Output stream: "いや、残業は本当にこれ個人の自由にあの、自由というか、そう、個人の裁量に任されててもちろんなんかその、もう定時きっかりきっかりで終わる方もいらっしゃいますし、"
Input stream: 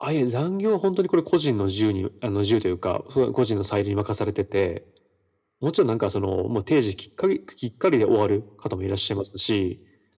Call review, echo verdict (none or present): present